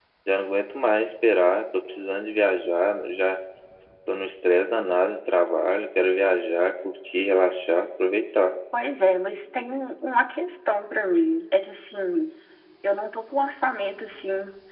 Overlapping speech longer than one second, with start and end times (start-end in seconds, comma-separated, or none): none